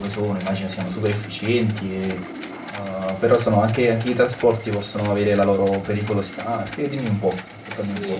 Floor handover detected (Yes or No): Yes